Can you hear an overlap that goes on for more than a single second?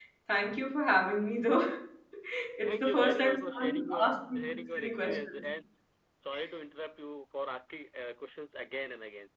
Yes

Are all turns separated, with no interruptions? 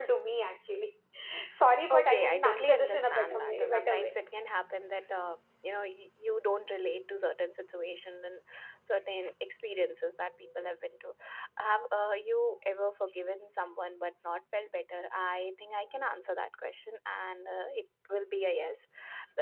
No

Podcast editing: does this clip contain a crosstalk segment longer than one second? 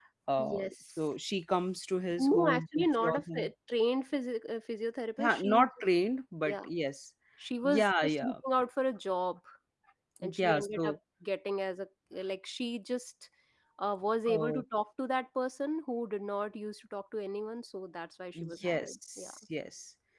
Yes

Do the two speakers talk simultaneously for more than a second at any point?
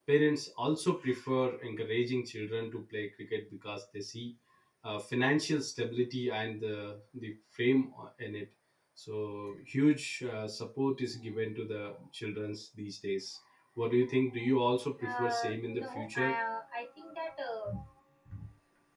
Yes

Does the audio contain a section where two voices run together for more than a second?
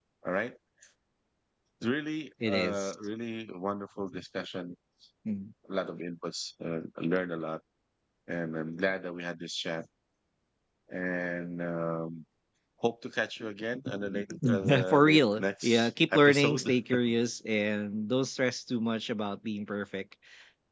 Yes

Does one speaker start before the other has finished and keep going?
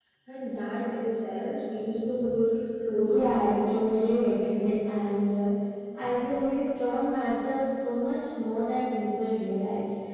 Yes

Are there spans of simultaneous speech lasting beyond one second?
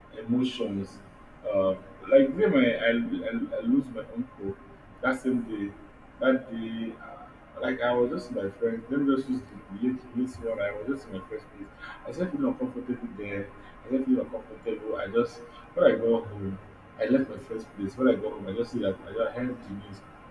No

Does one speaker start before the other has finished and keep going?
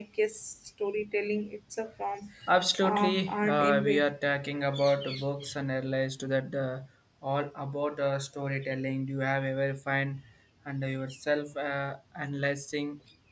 Yes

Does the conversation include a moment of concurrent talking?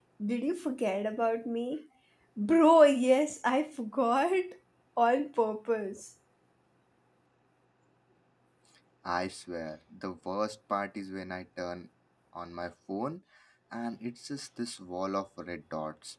No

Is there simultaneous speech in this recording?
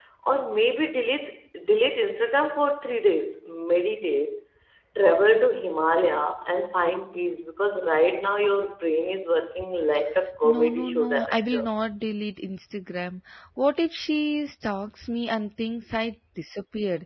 Yes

